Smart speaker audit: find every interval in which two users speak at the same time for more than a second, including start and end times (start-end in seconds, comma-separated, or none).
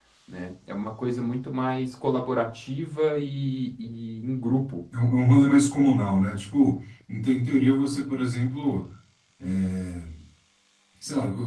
none